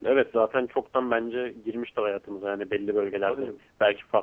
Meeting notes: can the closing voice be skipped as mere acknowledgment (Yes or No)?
Yes